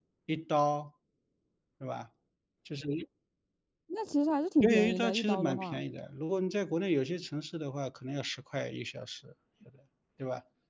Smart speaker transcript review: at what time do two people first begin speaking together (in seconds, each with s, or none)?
4.6 s